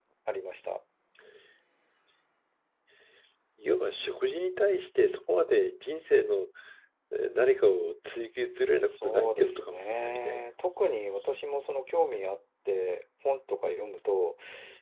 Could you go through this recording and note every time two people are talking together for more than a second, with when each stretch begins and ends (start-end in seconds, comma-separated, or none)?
8.7-10.4